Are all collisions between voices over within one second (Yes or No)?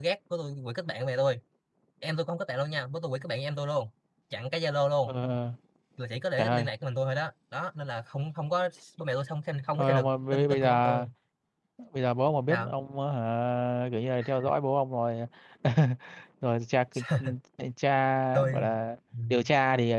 No